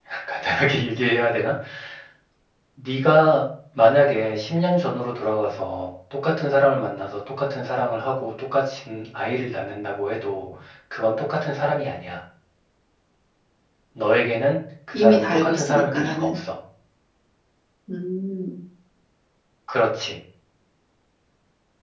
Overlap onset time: 14.9 s

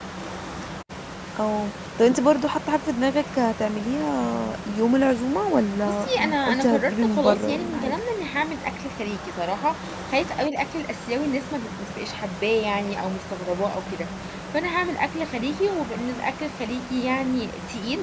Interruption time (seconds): 5.8 s

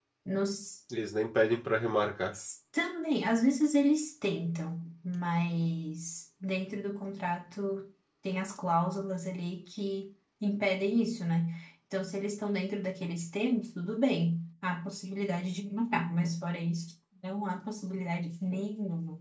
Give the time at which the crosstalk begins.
none

